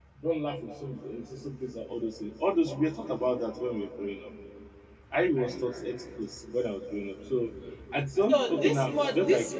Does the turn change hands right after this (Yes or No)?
Yes